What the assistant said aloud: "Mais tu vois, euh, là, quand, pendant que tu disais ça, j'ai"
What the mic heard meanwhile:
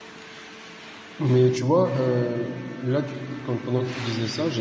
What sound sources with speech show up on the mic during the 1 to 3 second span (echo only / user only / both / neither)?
echo only